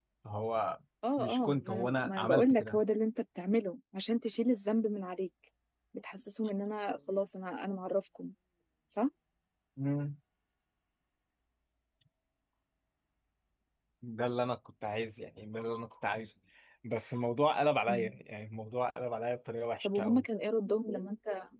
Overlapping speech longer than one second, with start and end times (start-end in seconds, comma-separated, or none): 1.2-2.5